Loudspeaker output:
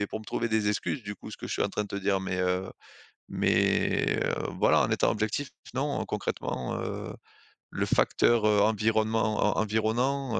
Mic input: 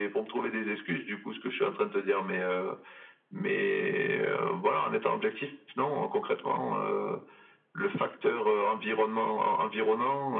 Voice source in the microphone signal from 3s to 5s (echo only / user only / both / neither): echo only